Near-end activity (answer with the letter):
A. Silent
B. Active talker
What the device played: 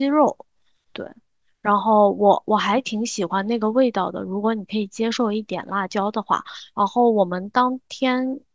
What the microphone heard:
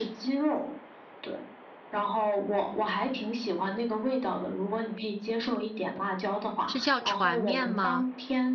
B